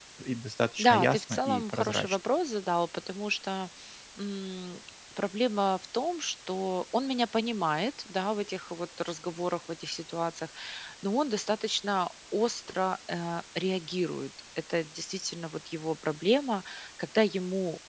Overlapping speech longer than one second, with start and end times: 0.8-2.2

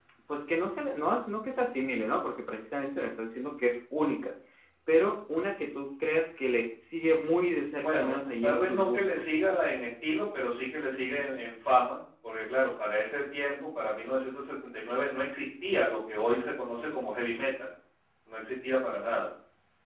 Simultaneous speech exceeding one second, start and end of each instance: 7.8-9.2

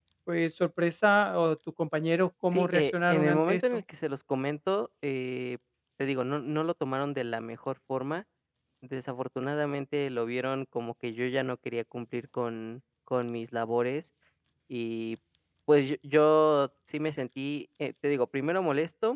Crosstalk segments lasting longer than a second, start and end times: 2.5-3.8

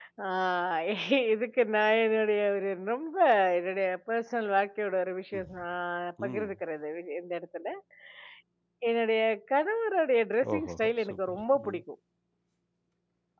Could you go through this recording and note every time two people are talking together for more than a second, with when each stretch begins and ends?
10.5-11.8

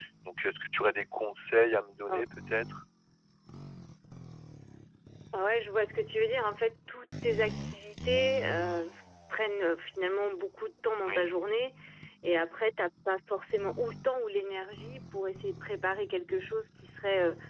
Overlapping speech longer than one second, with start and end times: none

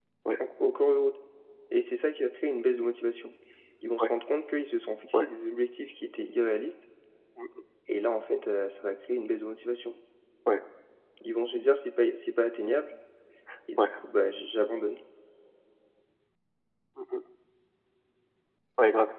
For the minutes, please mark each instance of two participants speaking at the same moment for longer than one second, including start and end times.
none

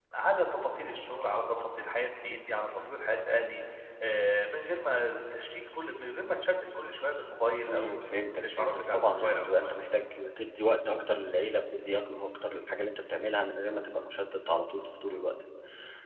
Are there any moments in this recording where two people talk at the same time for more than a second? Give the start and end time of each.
8.3-9.8

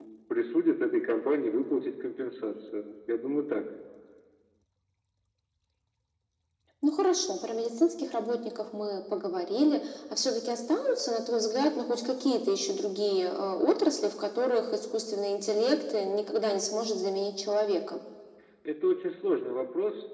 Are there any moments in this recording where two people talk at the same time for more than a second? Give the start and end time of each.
none

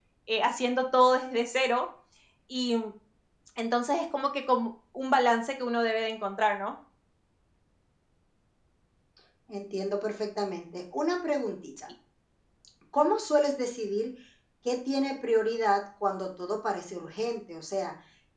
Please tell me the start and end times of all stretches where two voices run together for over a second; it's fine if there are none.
none

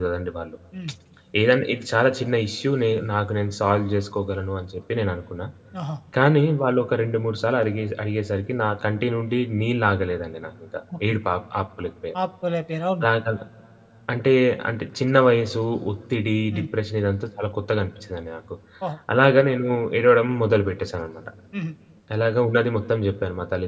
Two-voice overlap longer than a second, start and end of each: none

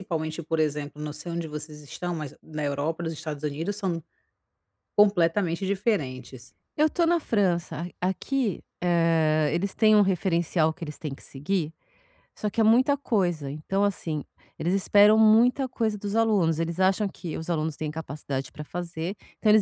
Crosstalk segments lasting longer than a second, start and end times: none

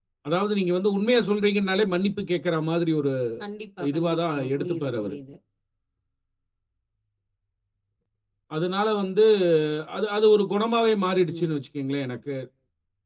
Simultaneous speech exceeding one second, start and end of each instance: 3.9-5.2

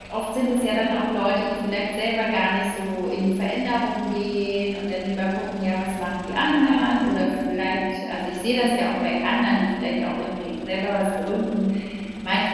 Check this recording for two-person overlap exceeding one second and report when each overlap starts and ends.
none

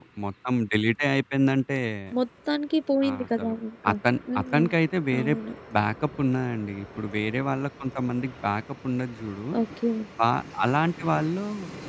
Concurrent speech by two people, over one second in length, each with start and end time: none

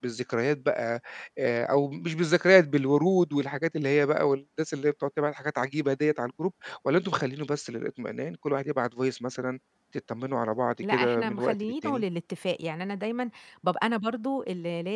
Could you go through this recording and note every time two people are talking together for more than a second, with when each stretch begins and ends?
10.8-12.0

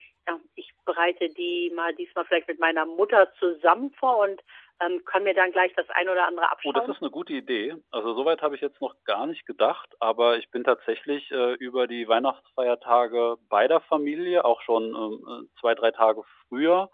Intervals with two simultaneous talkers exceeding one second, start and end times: none

